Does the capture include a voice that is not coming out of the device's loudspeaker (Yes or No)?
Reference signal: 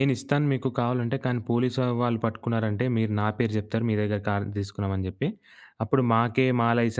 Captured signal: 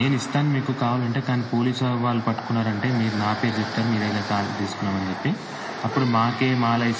No